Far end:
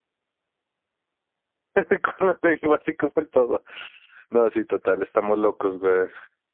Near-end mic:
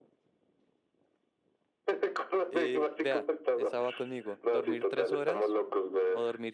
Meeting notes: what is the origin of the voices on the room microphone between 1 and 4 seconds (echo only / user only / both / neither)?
both